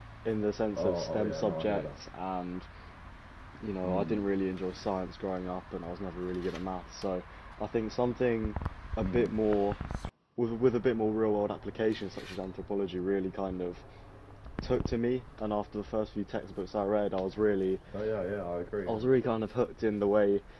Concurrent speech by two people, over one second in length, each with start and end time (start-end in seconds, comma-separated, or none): 0.8-2.0